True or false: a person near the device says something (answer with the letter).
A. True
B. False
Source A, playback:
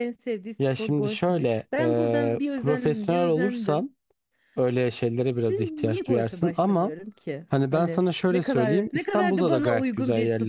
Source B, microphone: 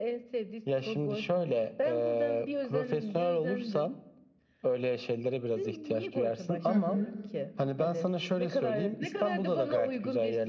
A